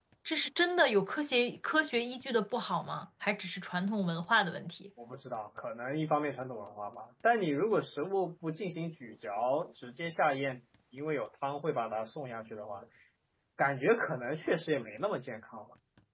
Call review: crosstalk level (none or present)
none